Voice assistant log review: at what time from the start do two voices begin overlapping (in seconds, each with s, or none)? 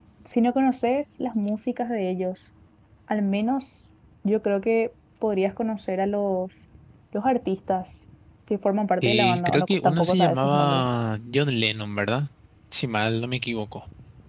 9.0 s